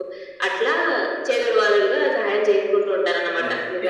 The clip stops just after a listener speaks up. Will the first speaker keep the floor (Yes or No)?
No